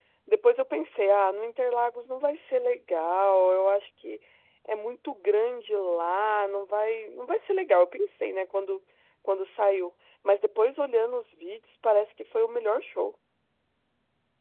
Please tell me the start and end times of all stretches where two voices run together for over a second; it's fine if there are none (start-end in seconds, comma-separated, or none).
none